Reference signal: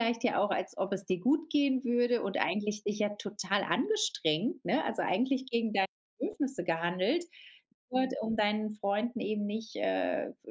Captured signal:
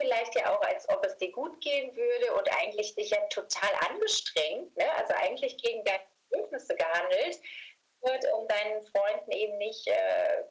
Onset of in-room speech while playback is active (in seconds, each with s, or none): none